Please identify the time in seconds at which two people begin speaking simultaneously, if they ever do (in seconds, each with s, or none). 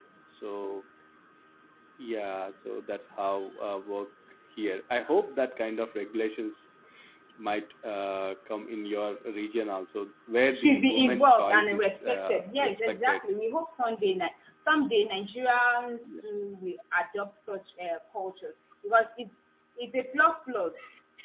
10.5 s